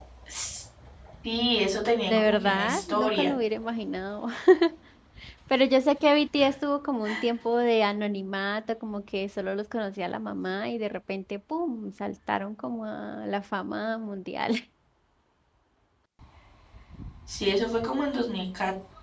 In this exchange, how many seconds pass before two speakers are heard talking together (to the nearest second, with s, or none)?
2 s